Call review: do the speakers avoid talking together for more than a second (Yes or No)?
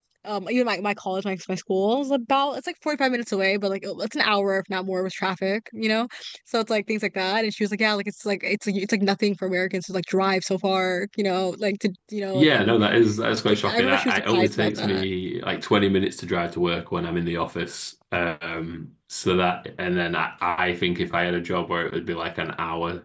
No